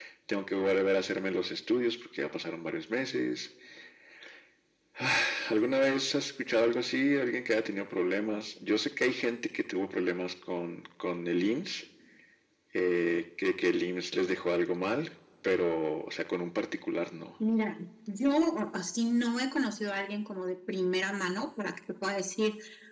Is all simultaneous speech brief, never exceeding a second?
Yes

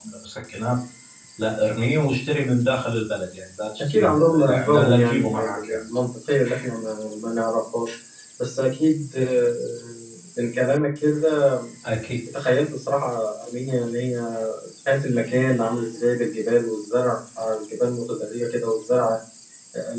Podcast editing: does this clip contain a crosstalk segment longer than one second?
Yes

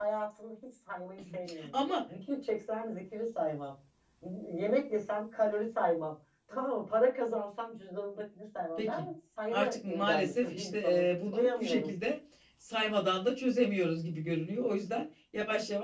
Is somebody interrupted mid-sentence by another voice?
Yes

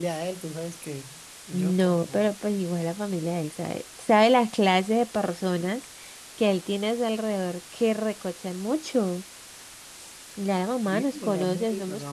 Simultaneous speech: Yes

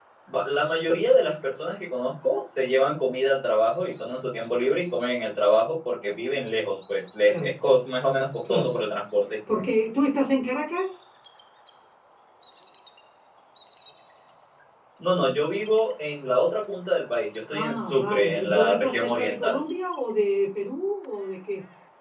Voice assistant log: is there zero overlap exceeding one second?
No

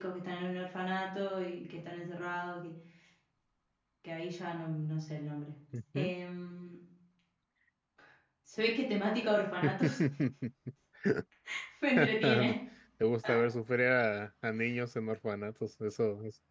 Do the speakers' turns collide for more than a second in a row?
No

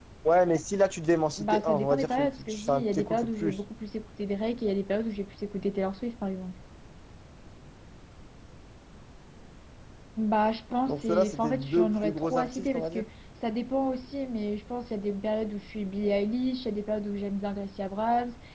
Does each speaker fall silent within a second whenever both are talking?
No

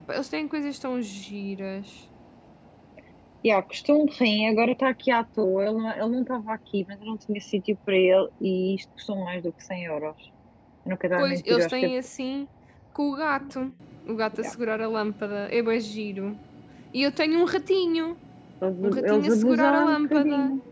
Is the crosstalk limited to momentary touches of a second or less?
No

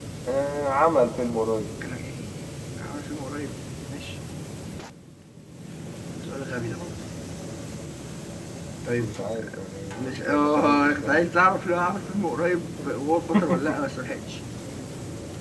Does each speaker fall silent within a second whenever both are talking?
No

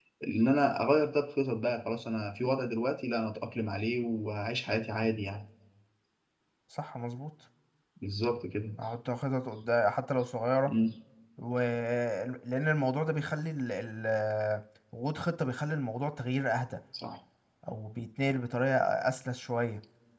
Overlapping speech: No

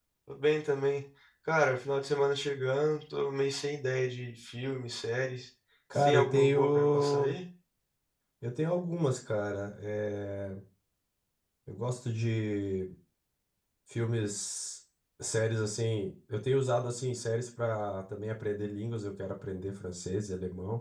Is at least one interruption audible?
Yes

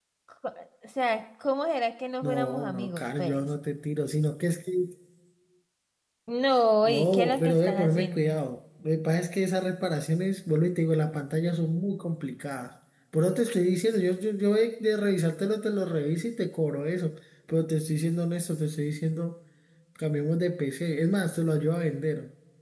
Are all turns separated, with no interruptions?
No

